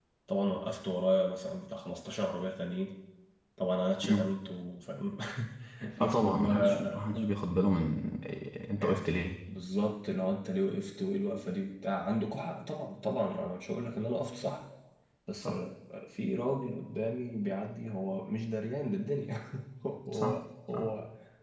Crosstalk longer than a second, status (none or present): present